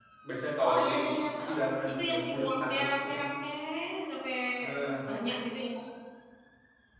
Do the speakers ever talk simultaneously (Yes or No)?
Yes